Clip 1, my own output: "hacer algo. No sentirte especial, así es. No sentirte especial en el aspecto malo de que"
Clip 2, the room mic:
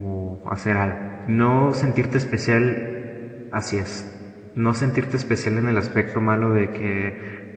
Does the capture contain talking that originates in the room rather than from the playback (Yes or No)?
No